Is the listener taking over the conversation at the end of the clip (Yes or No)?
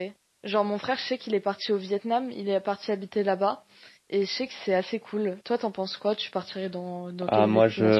Yes